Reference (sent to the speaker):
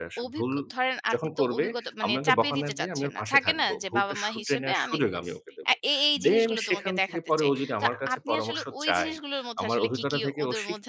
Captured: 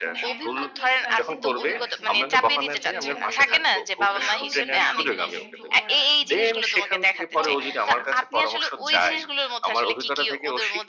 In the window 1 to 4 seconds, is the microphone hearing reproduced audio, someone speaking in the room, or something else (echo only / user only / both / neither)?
both